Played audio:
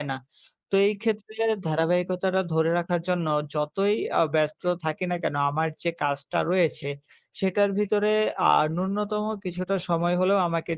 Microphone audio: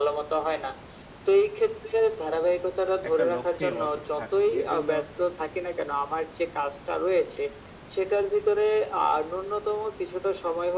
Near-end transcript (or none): একটা লক্ষ্যে অটুট থাকুন। এর জন্য